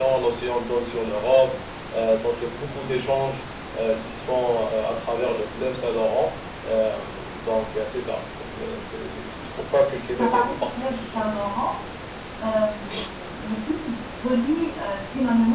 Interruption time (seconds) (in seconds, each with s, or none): 10.2 s